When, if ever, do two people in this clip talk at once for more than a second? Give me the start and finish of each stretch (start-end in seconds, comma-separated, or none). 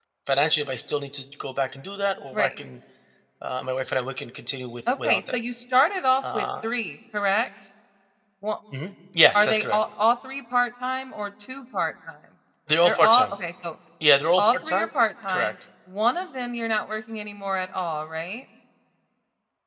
none